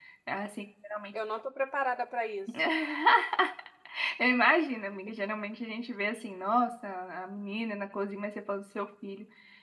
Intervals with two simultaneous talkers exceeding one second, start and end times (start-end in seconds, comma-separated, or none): none